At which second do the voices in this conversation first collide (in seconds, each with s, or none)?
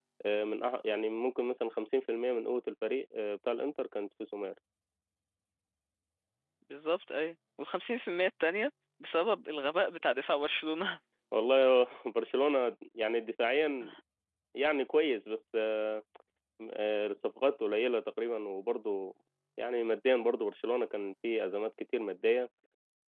none